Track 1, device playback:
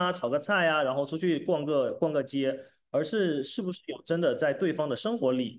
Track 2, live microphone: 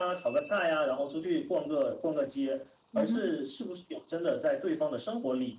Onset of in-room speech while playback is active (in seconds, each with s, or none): 2.9 s